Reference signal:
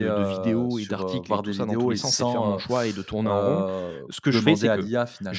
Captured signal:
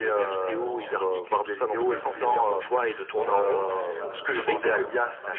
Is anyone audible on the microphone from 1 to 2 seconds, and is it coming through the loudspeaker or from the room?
both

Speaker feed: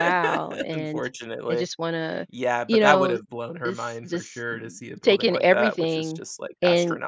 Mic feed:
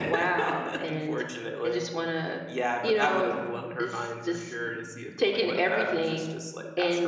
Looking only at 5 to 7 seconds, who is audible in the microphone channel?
echo only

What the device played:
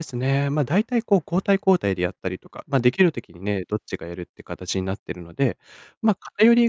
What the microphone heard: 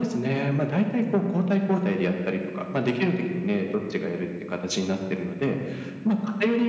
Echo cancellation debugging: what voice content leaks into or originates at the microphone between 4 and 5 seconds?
echo only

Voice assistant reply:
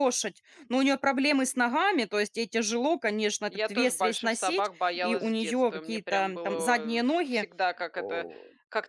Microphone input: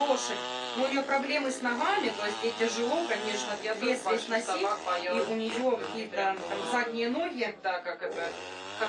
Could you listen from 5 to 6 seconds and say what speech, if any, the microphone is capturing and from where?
echo only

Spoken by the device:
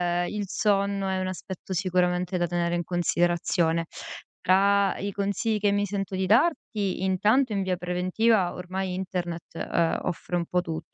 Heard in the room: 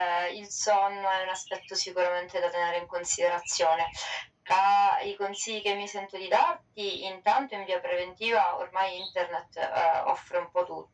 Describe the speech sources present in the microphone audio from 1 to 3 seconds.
echo only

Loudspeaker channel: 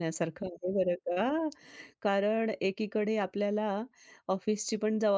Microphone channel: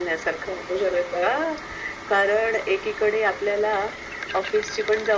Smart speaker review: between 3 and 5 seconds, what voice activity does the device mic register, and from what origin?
echo only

